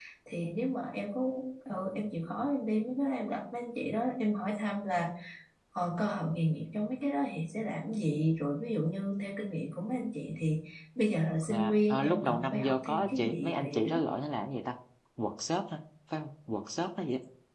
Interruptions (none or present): present